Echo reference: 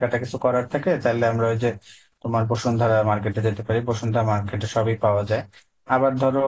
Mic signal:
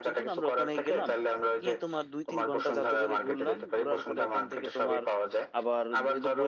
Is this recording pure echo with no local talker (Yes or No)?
No